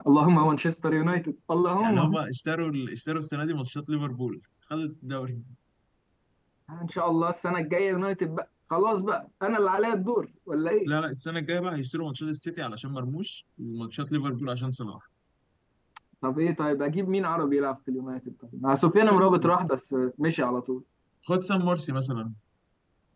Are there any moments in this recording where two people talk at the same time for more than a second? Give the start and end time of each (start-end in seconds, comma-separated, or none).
none